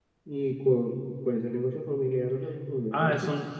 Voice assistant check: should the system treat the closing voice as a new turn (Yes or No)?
Yes